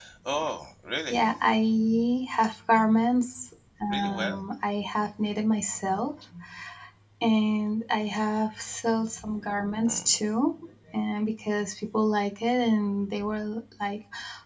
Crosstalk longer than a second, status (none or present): none